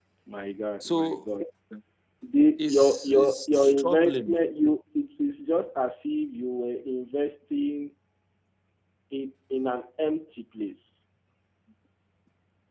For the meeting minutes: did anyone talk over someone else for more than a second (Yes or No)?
Yes